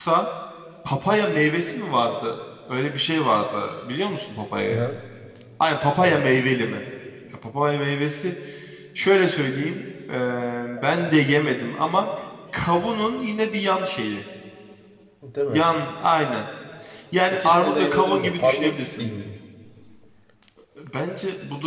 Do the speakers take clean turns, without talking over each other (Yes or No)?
No